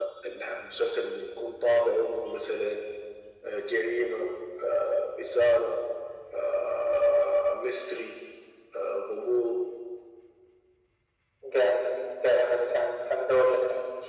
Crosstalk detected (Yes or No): No